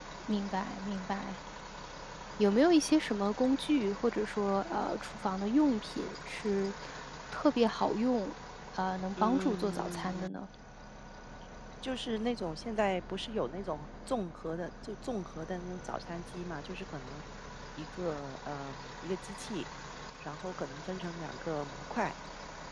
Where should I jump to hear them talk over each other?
9 s

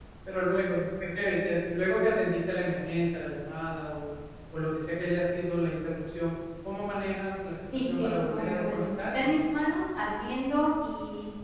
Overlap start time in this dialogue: 8 s

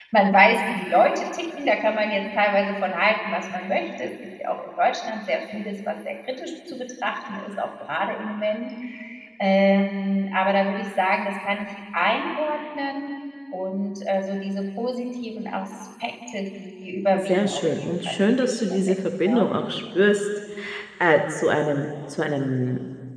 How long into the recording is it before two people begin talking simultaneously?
17 s

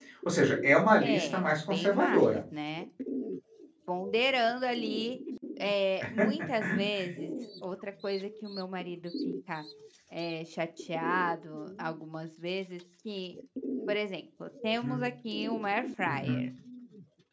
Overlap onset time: 1 s

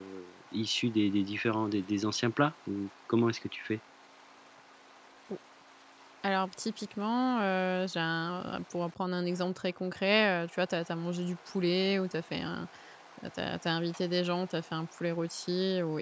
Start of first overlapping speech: none

